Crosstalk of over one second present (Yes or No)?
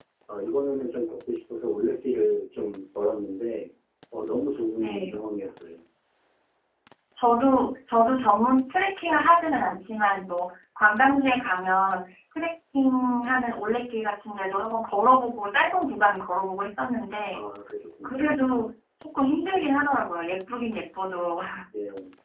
No